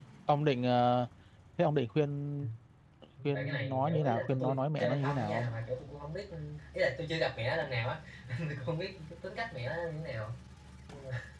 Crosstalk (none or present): present